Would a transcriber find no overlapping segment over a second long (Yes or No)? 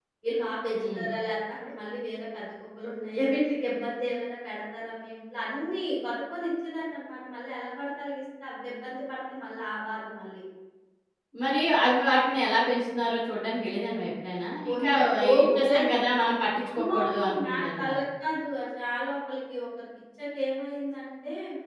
No